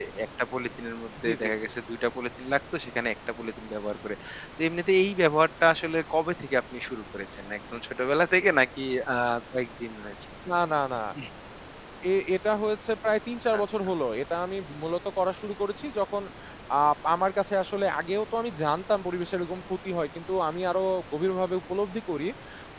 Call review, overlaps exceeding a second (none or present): none